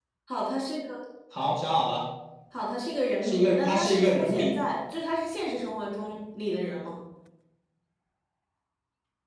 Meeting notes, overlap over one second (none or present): present